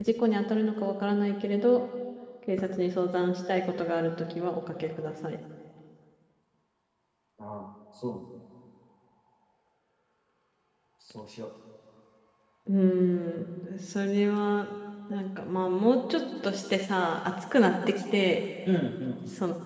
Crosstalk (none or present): none